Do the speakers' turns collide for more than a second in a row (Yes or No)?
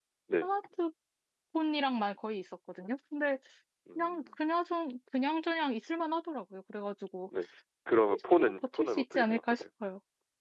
Yes